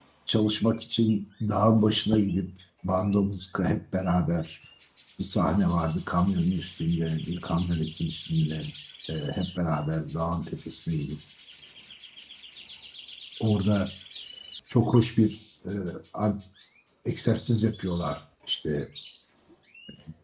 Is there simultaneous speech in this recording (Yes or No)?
No